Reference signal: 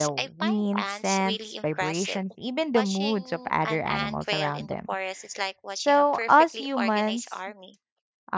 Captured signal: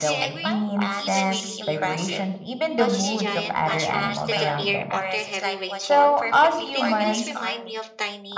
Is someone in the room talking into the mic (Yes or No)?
Yes